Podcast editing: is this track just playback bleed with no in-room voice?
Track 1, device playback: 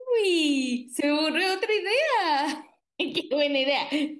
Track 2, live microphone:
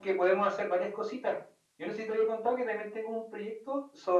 No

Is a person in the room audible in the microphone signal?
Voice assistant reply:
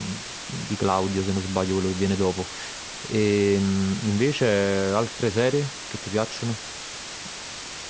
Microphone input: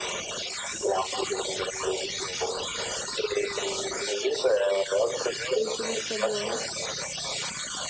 Yes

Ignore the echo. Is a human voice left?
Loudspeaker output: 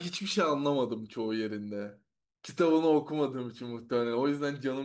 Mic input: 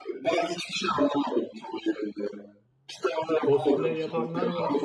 Yes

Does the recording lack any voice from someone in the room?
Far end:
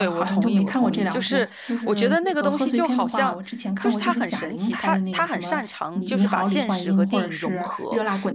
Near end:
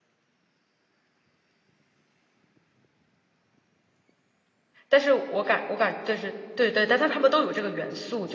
No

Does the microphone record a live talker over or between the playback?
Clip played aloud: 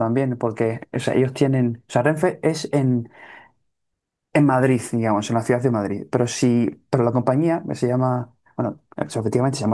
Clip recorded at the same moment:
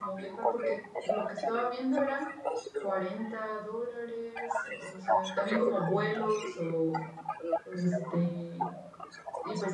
Yes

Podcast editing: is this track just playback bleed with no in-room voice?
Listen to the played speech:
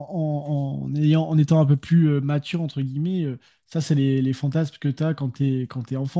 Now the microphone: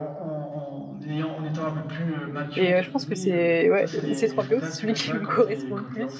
No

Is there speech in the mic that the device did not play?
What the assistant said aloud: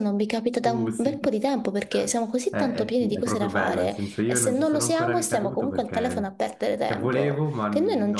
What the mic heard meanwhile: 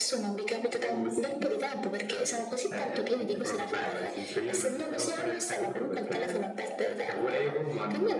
No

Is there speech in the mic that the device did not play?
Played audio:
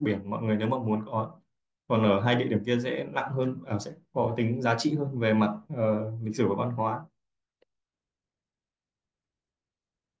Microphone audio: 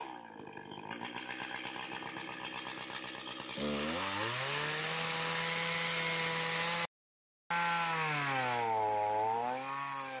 No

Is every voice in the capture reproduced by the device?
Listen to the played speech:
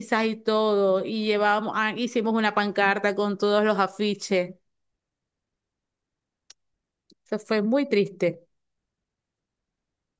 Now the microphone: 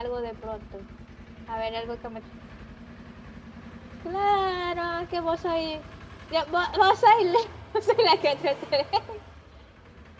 No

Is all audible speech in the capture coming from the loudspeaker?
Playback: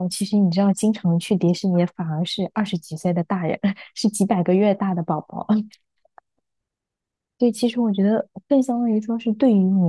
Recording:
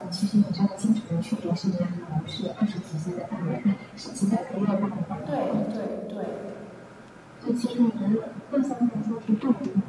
No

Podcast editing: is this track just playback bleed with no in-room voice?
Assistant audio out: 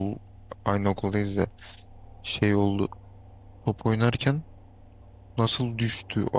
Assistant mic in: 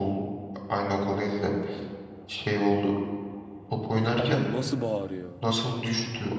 No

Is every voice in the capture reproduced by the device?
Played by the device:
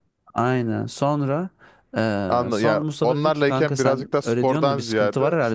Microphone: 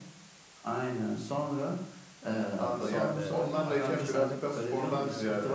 No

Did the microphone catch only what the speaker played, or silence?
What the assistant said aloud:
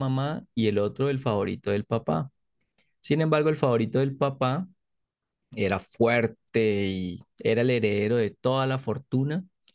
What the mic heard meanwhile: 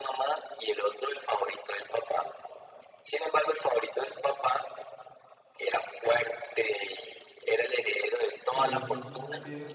No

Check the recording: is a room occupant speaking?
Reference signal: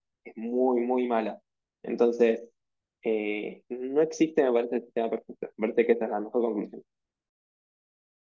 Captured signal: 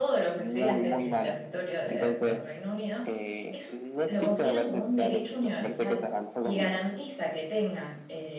Yes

